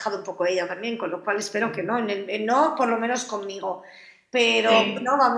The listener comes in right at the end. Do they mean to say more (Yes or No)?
No